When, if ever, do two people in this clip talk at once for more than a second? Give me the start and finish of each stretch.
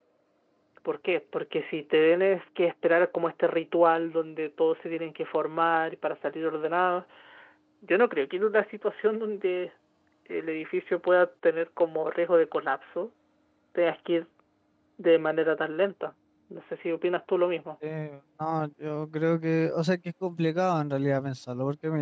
none

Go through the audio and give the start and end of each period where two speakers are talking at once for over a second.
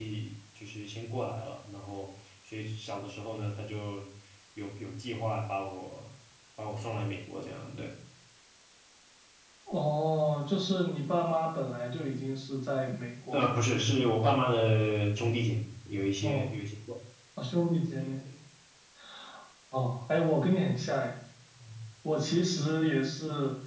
none

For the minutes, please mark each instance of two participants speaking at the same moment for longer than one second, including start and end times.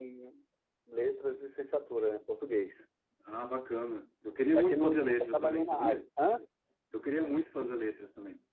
4.6-6.0

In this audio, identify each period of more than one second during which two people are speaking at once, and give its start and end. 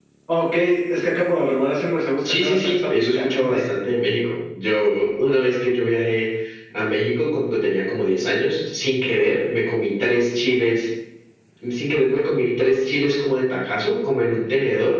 2.2-3.6

